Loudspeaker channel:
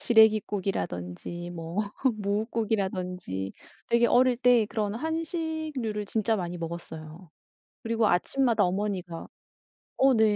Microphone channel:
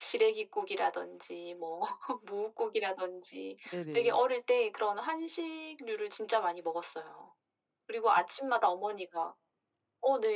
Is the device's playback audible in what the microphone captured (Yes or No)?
Yes